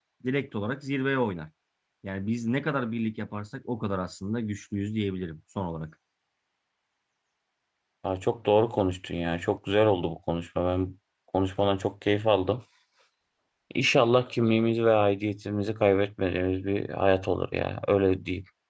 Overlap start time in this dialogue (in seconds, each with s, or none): none